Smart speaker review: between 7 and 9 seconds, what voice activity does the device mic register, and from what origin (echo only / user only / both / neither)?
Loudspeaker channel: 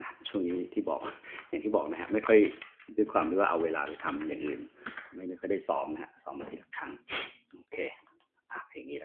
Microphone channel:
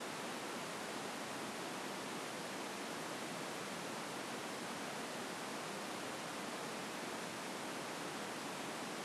neither